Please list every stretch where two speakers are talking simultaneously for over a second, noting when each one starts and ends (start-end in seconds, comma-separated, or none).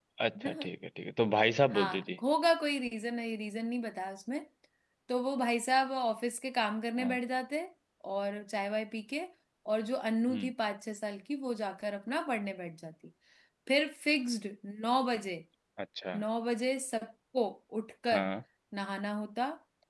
none